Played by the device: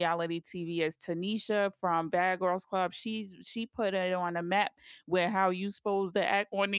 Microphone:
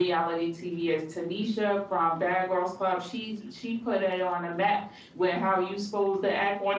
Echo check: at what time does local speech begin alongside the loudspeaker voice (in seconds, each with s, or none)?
none